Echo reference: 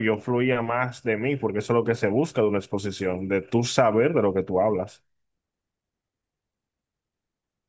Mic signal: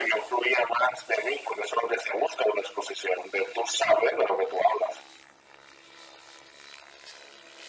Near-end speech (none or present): none